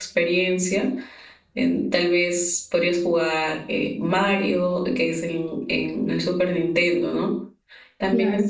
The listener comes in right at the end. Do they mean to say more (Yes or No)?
No